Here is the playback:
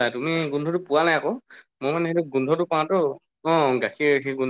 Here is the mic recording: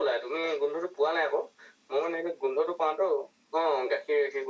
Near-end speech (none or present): none